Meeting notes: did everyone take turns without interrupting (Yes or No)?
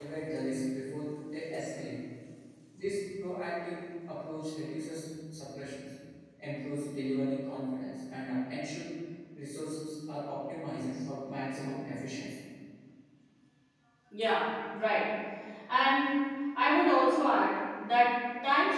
Yes